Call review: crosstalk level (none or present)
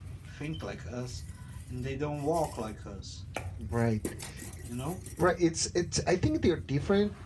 none